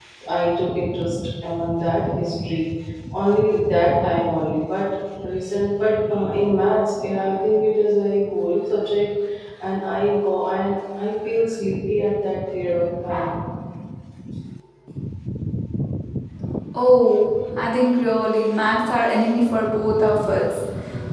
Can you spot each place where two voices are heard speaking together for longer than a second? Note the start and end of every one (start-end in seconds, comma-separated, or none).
none